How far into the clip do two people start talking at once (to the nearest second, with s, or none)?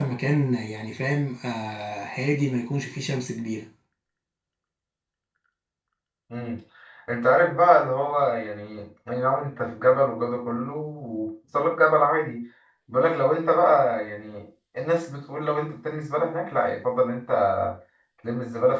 none